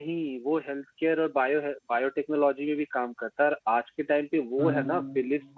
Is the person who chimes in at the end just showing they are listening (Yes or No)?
Yes